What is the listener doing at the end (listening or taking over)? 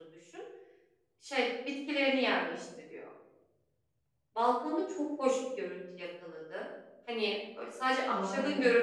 listening